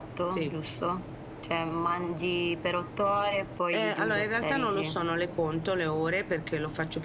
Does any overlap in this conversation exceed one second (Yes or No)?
Yes